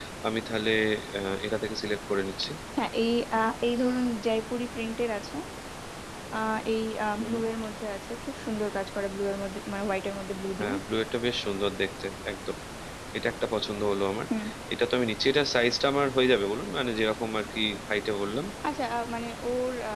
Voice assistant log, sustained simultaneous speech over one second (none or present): none